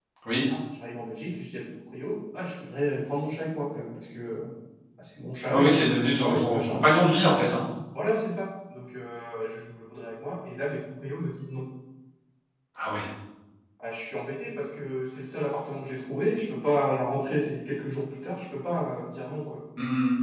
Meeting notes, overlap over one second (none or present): present